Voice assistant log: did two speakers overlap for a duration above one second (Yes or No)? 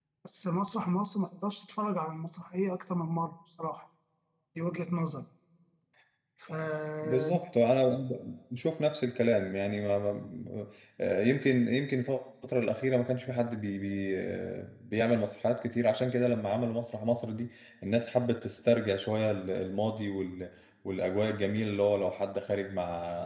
No